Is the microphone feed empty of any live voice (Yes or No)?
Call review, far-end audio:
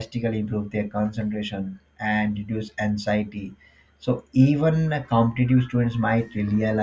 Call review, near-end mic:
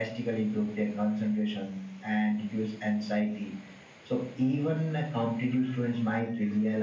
Yes